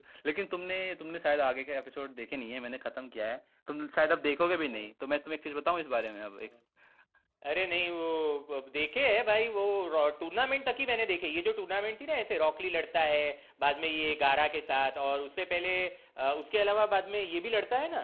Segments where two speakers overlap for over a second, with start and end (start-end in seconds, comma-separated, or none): none